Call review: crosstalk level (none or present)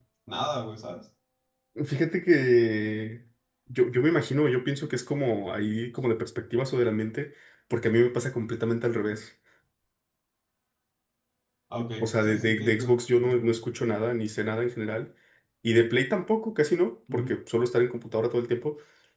present